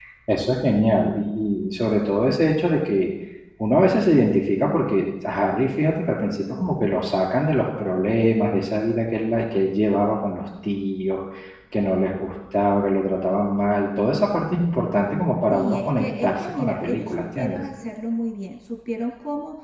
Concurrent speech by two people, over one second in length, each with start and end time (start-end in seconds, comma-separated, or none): 15.5-17.6